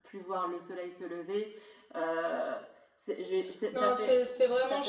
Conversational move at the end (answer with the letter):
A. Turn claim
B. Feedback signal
A